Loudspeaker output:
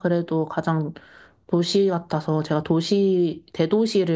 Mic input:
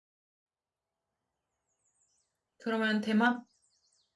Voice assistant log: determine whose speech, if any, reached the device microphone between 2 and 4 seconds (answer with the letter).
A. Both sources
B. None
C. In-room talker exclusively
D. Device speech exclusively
C